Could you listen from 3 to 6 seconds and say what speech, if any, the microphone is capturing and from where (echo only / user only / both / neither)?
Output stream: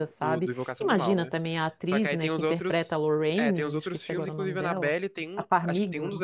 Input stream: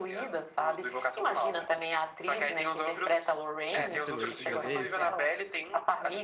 both